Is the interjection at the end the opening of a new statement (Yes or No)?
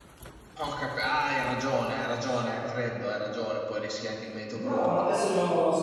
Yes